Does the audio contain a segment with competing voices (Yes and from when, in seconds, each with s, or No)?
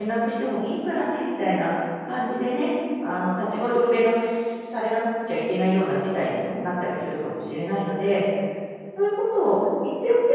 No